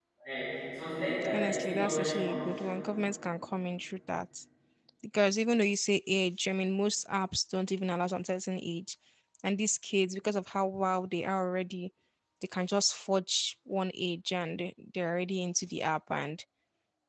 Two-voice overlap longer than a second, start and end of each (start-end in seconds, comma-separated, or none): 1.3-2.7